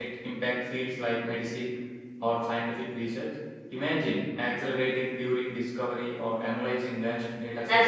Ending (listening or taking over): taking over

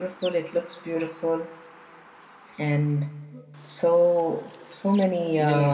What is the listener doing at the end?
taking over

